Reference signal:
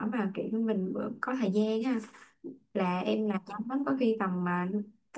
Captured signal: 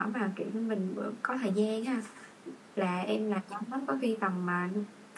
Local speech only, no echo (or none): none